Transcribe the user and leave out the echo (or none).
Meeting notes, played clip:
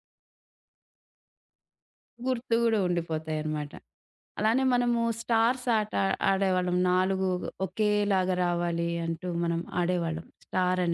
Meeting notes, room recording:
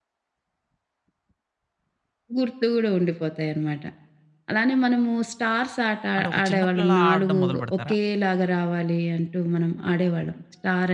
అంటే ఒక చిన్న పిల్లలా ఆడడం మొదలుపెడతారా?